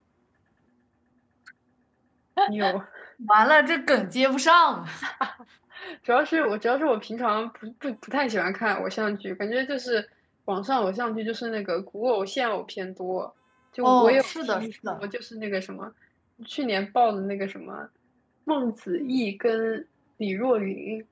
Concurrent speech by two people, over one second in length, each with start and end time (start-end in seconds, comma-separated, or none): 13.8-15.1